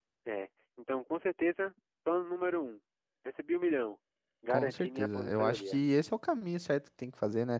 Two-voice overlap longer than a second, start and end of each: 4.5-5.8

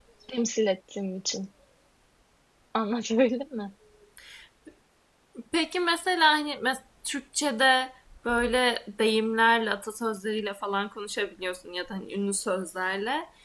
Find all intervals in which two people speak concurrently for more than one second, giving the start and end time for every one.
none

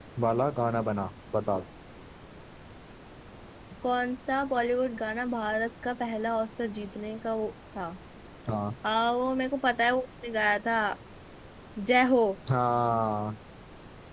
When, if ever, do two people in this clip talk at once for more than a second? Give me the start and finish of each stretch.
none

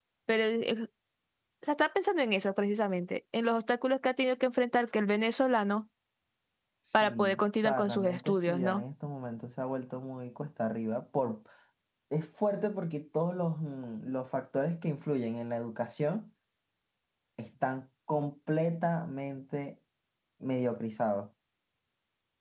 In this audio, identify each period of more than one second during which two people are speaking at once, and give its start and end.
6.9-8.8

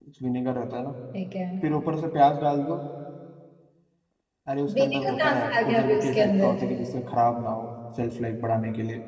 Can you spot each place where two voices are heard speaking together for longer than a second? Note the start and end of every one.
4.8-6.6

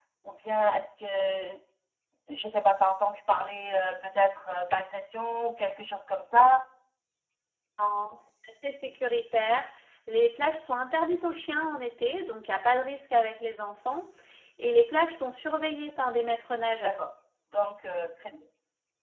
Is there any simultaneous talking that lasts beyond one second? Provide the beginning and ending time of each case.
none

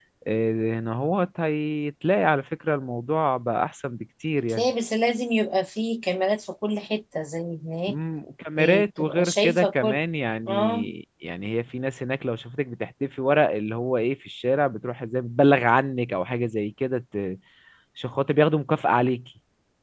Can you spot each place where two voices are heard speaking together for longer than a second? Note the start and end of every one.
8.6-10.0

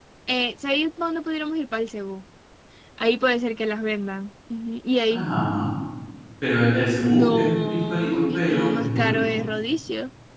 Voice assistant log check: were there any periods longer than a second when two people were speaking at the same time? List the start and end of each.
7.0-9.4

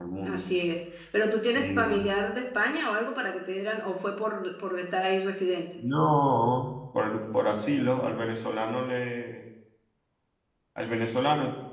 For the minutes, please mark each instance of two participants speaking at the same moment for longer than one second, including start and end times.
none

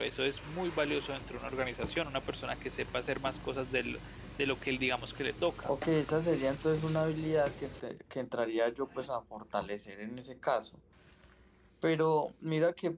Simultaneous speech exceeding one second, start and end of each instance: none

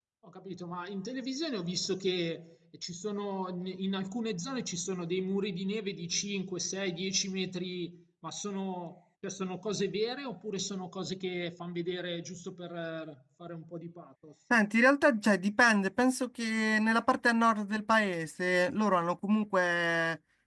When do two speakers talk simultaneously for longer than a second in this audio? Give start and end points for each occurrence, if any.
none

